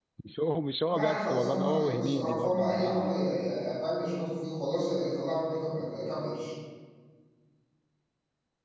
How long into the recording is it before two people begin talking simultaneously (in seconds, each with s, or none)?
0.8 s